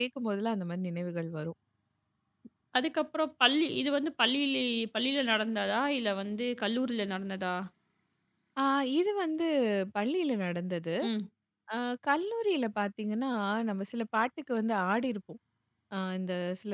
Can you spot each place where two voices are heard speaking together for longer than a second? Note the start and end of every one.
none

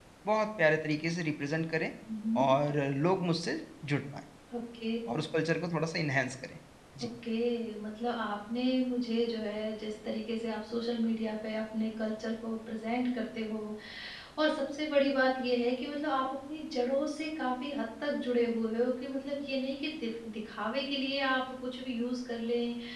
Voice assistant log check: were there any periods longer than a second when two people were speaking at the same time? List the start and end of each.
none

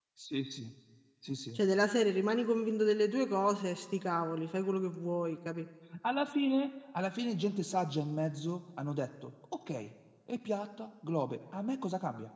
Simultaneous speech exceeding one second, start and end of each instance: none

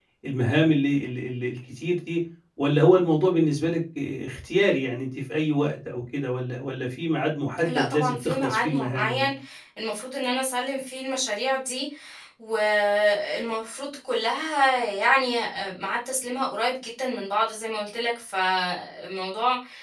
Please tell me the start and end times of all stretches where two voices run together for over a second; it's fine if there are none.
7.7-9.3

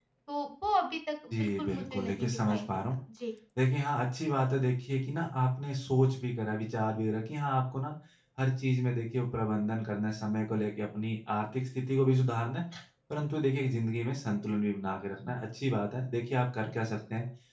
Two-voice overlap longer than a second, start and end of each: 1.3-2.8

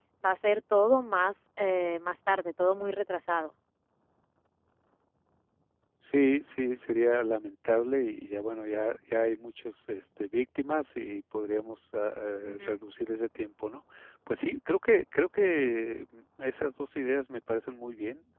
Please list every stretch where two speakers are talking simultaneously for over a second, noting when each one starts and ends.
none

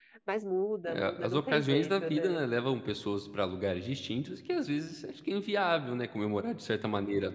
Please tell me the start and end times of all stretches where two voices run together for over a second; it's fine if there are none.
0.9-2.4

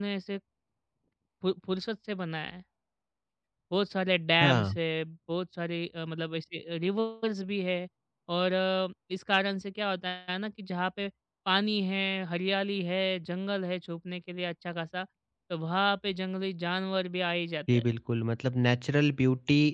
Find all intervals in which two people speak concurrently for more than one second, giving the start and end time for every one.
none

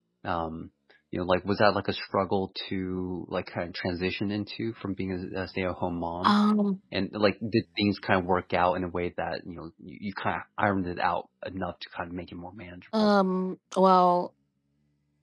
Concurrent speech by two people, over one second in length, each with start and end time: none

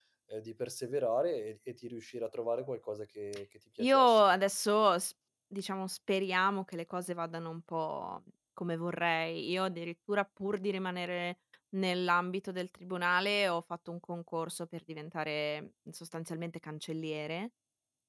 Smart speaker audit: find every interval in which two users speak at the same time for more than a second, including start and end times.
none

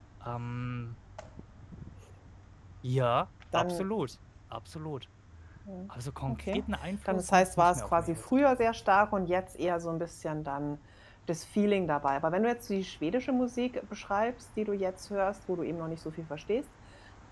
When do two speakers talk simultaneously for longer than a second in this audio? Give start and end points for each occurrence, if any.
7.0-8.7

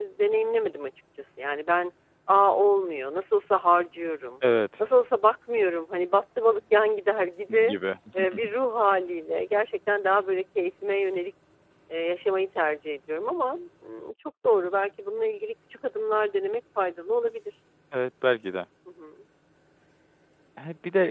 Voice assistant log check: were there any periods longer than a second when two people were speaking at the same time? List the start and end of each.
none

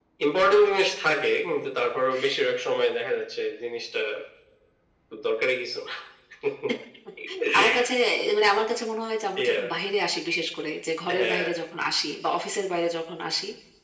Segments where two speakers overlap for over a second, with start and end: none

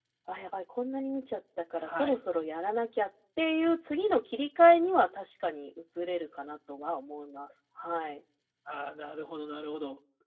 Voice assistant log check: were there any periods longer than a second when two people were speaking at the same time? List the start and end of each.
none

